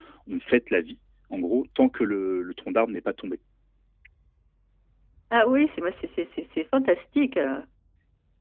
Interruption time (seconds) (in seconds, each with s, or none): none